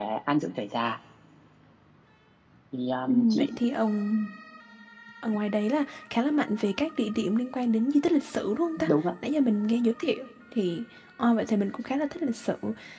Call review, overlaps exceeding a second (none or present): none